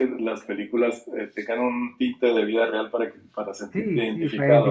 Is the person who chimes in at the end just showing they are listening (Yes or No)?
No